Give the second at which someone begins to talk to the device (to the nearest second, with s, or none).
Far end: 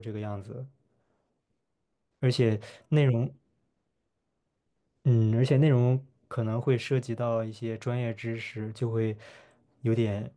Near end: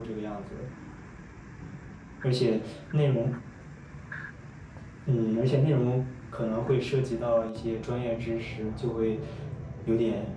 none